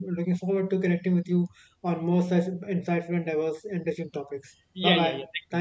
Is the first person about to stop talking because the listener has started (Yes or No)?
Yes